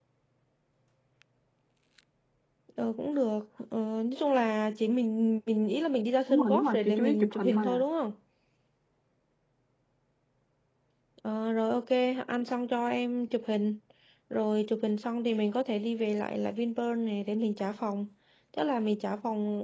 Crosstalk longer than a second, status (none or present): present